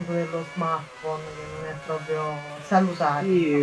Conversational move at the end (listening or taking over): taking over